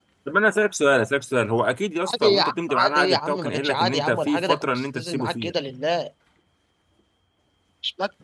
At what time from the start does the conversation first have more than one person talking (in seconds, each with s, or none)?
2.0 s